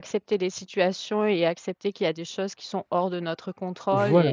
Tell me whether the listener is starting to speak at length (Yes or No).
Yes